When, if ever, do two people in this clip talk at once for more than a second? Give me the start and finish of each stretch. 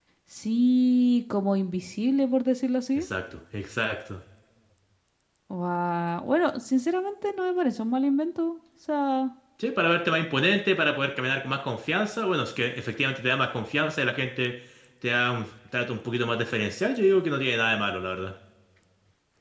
none

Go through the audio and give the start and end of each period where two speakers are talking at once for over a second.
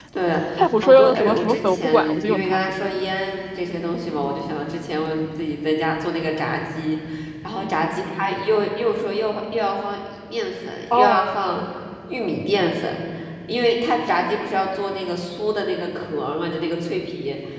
0.8-2.7

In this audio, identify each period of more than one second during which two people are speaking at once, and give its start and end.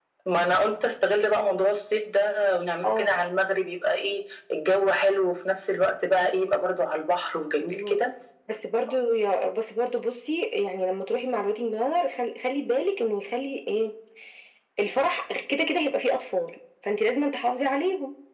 none

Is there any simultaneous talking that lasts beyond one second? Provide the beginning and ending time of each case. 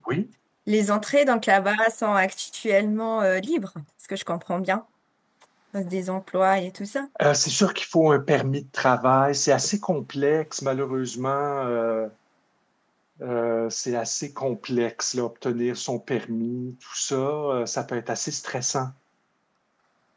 none

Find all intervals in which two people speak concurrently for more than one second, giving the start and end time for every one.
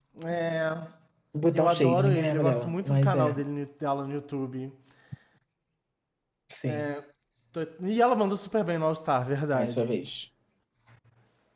1.5-3.4

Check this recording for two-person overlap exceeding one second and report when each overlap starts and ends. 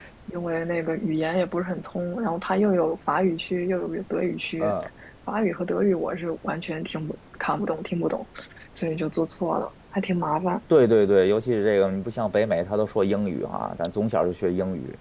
none

